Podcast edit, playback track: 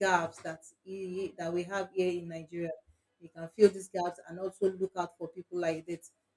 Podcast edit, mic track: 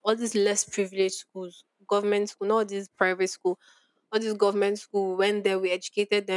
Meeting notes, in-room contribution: present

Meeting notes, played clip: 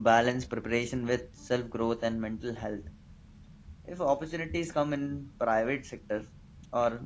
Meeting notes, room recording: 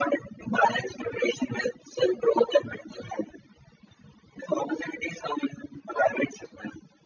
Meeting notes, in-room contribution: none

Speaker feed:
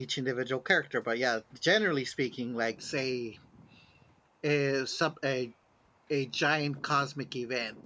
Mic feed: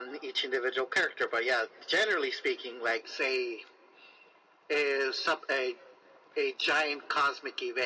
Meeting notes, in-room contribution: none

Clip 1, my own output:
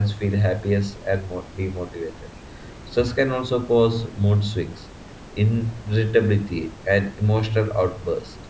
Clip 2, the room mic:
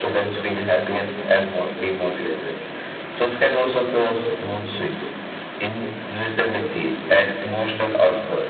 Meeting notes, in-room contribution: none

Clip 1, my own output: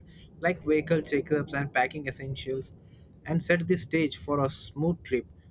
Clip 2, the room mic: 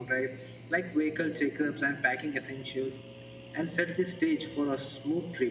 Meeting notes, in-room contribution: none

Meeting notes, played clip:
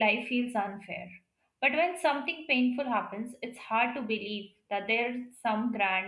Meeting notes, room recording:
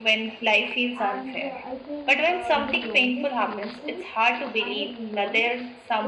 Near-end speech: present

